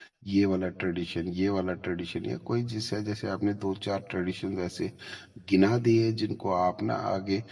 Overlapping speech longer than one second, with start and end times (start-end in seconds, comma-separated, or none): none